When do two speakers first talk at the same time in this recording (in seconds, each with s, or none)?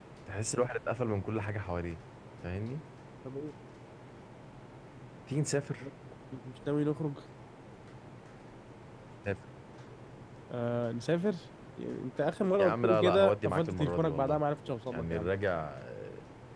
12.6 s